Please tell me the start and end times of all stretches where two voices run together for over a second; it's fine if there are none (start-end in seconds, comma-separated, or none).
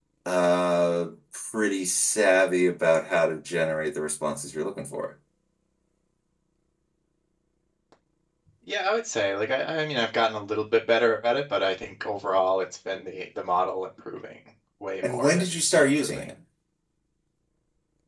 15.0-16.3